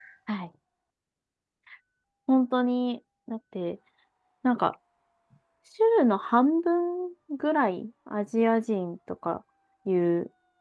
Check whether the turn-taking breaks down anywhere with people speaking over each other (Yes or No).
No